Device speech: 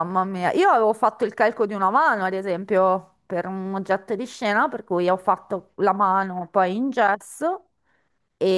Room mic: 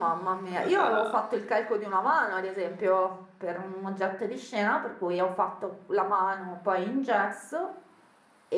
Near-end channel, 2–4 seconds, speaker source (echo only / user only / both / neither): echo only